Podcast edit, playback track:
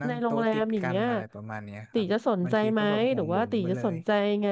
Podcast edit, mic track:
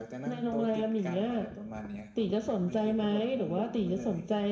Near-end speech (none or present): none